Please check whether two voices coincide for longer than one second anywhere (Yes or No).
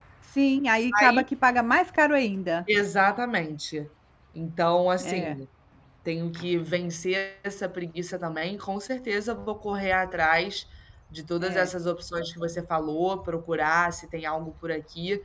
No